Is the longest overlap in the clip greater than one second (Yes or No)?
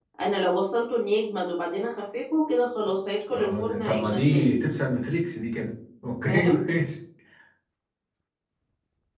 Yes